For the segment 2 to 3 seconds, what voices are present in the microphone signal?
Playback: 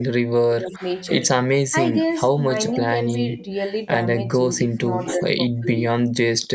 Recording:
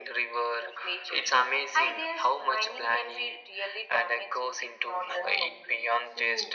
echo only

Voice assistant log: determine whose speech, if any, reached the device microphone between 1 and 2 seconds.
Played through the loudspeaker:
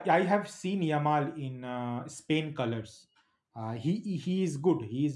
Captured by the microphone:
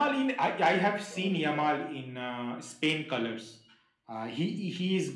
both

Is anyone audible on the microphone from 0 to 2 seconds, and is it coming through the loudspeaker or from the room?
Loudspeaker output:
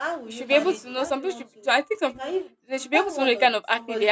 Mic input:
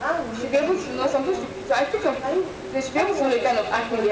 echo only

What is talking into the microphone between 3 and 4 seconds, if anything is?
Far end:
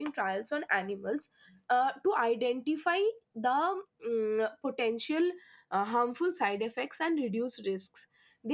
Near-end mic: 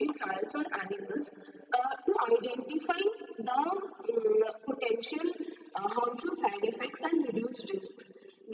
echo only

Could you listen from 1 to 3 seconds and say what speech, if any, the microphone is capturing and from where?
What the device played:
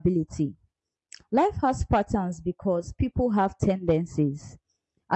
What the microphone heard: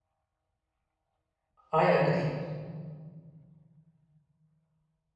user only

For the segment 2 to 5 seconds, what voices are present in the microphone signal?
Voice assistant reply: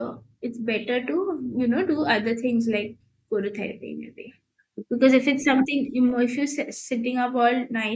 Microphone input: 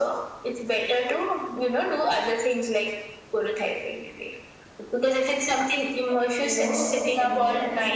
echo only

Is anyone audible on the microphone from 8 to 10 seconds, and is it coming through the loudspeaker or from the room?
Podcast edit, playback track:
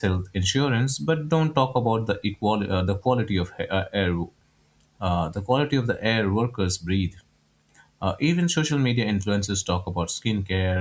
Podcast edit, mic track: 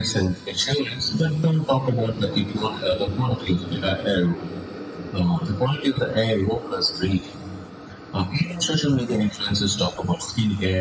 echo only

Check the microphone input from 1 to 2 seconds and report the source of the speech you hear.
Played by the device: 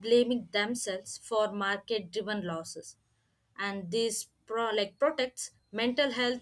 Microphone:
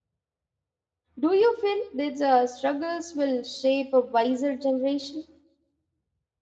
user only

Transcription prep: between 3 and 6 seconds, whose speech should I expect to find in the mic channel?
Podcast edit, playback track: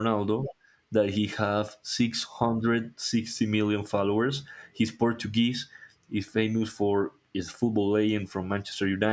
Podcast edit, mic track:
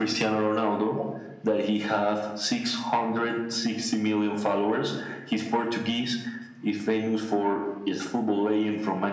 echo only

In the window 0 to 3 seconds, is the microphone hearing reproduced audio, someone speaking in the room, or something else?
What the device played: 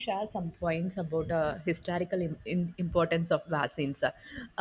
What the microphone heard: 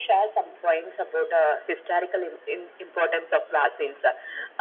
echo only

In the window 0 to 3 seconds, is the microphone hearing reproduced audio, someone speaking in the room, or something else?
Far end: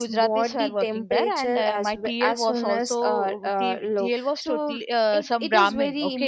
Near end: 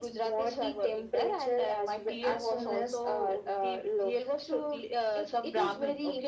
echo only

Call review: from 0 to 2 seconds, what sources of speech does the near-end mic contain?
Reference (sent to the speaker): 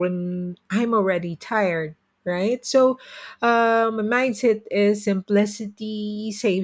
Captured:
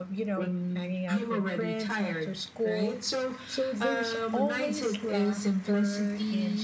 both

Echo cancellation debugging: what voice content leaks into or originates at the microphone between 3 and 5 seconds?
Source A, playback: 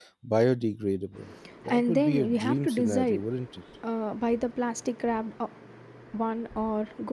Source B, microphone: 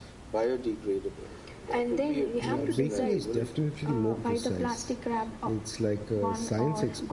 both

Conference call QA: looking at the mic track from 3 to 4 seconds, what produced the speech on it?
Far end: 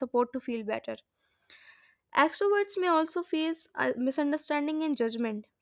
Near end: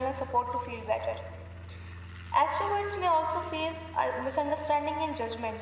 echo only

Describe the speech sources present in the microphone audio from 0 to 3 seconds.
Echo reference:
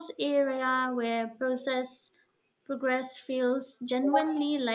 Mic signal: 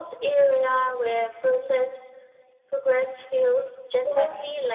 echo only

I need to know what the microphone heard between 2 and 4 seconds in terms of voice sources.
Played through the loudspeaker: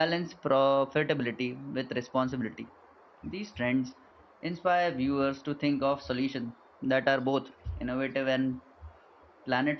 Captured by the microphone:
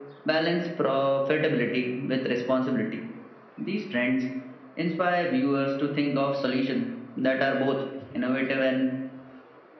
echo only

